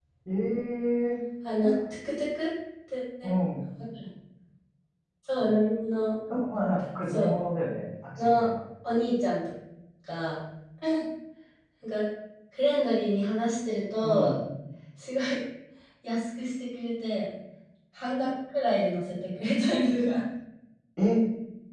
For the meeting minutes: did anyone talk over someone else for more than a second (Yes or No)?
No